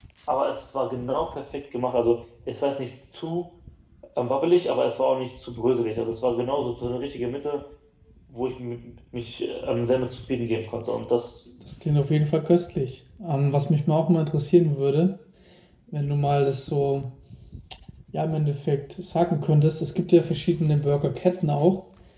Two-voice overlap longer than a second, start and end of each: none

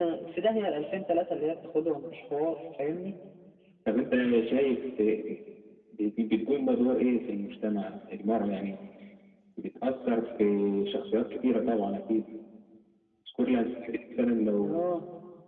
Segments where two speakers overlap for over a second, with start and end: none

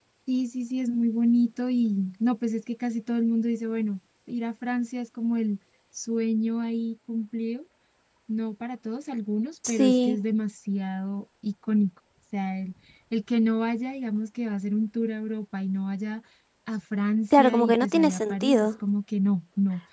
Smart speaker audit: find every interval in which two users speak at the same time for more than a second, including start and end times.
17.3-18.7

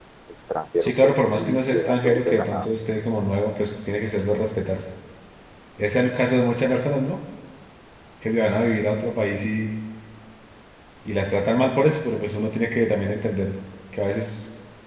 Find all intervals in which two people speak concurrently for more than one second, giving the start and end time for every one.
0.8-2.7

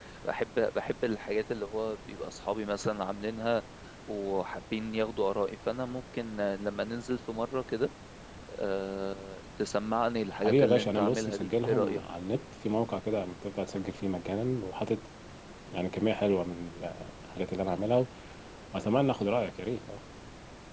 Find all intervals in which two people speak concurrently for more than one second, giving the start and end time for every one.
10.4-12.0

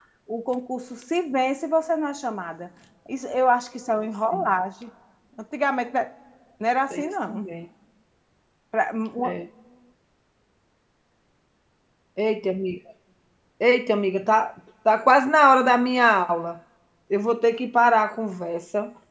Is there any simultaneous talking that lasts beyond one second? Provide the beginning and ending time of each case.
none

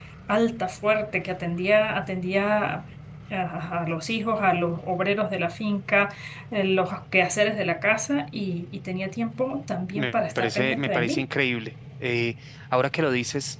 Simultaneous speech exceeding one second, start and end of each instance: 9.9-11.3

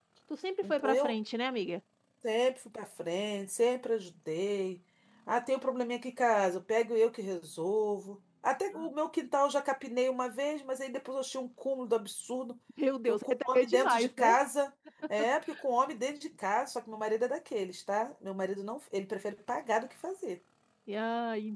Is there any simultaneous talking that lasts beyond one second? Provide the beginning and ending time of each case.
13.1-14.4

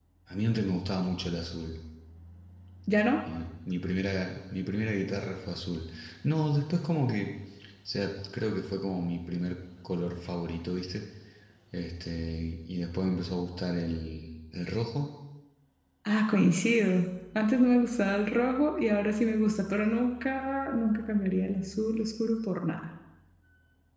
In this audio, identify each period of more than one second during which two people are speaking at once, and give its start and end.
none

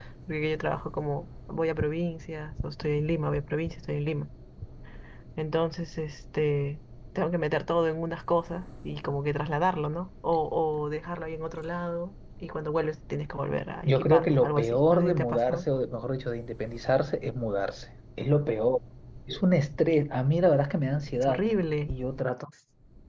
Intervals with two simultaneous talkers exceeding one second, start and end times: 13.8-15.7

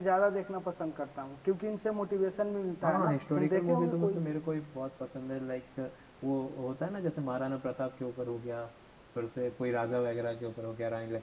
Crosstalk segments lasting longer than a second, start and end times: 2.8-4.2

